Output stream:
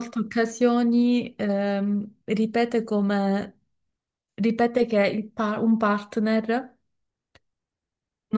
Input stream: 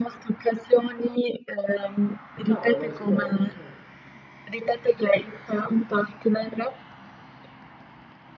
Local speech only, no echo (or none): Vabbè, lo espone. Eh.